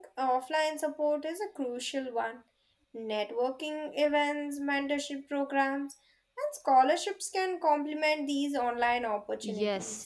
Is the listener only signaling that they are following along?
No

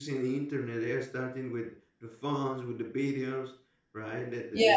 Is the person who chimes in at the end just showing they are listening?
Yes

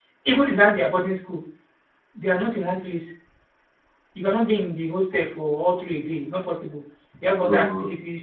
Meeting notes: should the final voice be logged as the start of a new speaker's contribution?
No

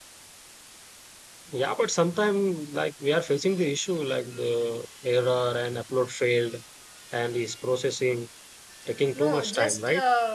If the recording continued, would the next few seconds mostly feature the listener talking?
Yes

